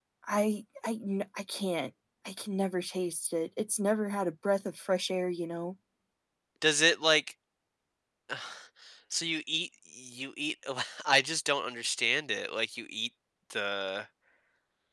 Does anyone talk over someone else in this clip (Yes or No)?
No